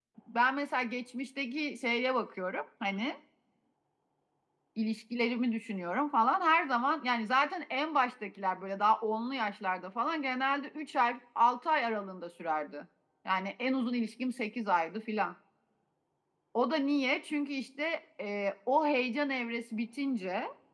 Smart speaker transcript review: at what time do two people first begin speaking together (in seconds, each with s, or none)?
none